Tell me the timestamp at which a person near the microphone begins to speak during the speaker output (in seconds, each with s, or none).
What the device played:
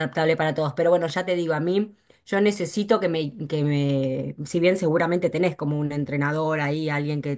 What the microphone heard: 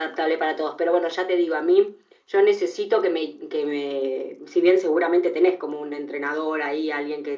none